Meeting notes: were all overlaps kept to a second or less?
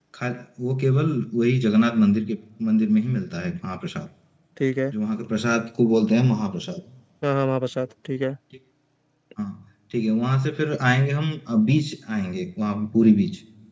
Yes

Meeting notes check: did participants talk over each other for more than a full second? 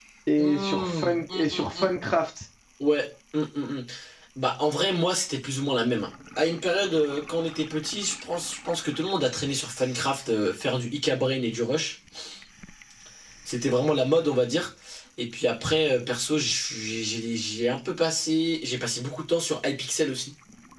Yes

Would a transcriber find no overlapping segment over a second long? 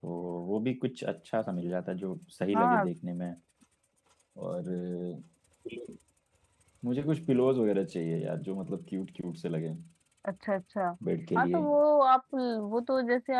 Yes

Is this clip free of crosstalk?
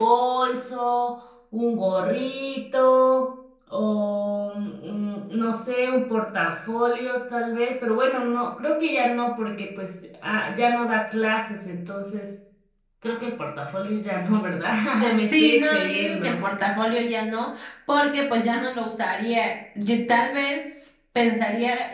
No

